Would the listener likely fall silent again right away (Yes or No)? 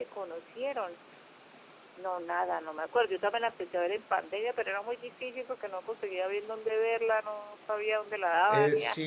No